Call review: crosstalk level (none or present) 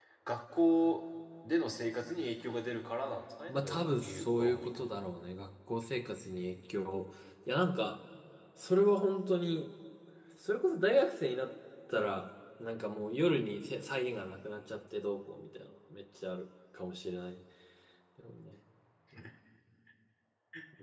present